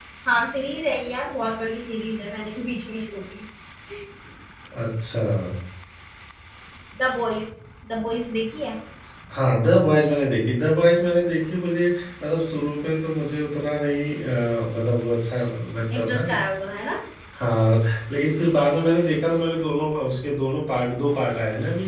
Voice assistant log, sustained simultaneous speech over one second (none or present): none